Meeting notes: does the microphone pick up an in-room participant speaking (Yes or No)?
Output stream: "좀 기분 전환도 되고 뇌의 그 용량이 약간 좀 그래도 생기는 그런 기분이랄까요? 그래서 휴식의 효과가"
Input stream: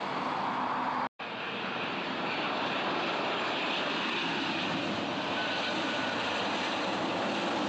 No